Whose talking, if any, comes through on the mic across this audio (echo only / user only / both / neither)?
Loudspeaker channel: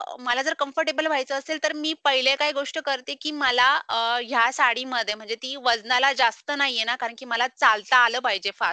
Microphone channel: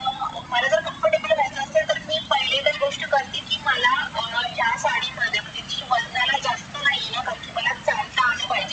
echo only